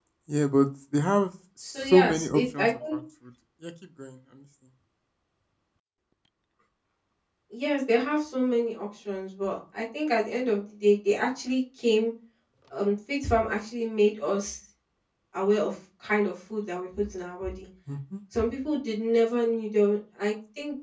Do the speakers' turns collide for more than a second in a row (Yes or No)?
Yes